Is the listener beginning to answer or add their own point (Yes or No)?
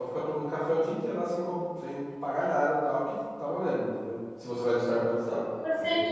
Yes